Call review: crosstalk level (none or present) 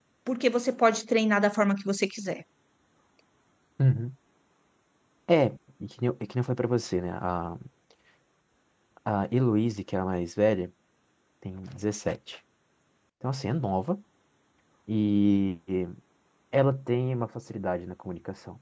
none